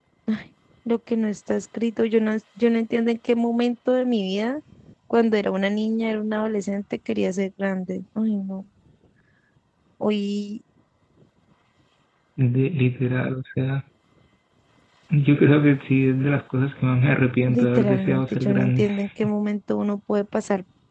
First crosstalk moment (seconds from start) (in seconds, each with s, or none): 17.5 s